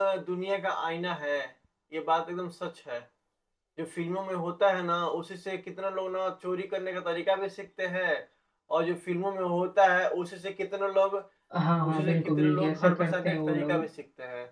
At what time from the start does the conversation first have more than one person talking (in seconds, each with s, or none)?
11.9 s